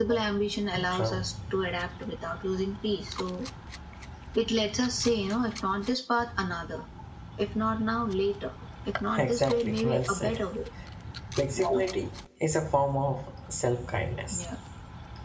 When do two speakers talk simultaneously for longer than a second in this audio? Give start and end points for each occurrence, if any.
9.2-10.4

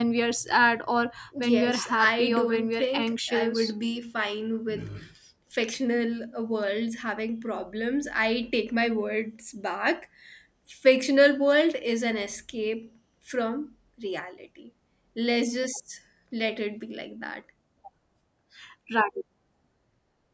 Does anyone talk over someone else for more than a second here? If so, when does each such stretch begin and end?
1.4-3.7

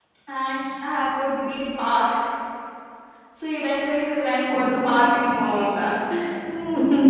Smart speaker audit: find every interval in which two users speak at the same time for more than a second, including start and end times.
4.5-5.9

